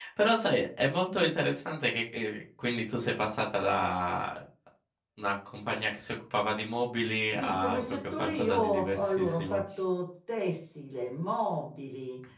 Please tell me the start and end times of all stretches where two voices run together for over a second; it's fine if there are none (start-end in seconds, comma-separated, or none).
7.3-9.6